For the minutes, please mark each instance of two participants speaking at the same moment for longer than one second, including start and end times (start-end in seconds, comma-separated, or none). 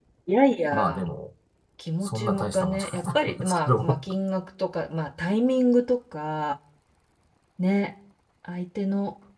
2.0-4.0